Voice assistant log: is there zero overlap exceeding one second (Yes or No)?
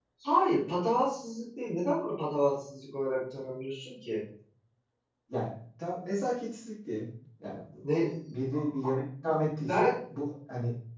Yes